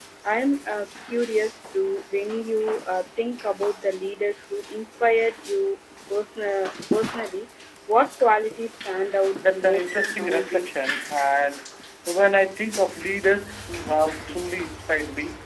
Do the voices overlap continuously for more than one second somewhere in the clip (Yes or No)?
Yes